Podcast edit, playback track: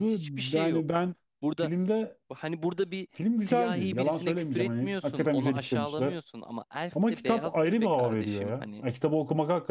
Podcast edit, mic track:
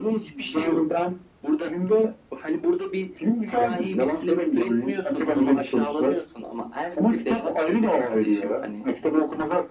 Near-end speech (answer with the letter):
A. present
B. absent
B